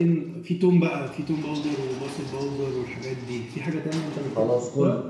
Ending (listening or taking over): taking over